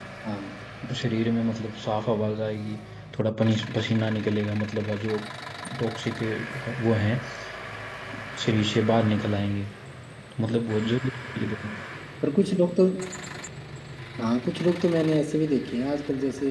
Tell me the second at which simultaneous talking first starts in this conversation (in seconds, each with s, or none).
none